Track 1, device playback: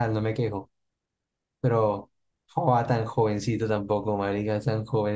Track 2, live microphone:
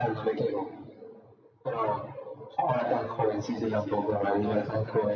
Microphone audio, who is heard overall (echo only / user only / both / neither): both